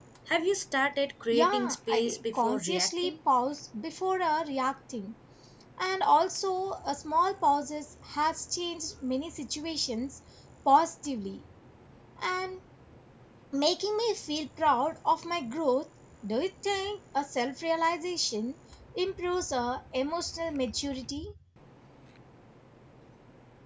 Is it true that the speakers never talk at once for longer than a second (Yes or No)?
No